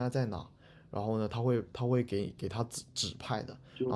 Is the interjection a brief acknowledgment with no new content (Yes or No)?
No